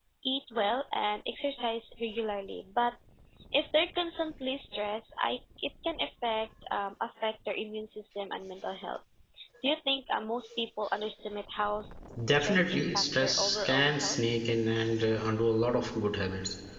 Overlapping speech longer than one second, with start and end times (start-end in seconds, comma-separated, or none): 12.3-14.2